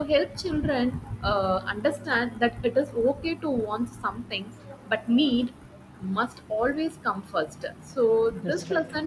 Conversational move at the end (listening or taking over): listening